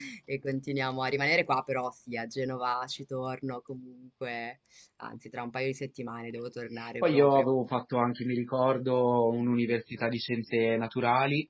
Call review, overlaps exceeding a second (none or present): none